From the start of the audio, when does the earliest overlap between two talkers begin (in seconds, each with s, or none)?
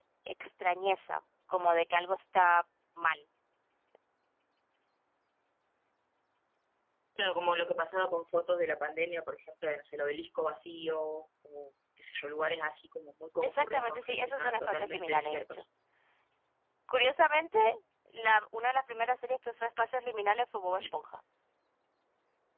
13.4 s